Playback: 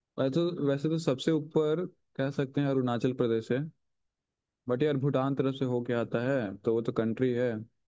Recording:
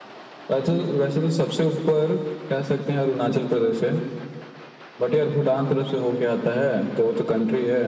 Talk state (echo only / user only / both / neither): echo only